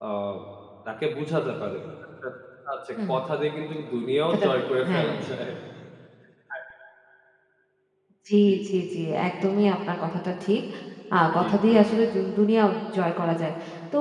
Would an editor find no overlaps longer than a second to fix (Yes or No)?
Yes